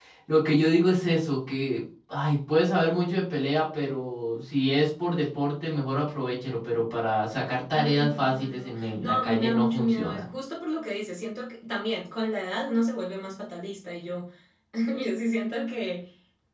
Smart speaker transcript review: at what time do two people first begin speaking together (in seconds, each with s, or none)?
7.7 s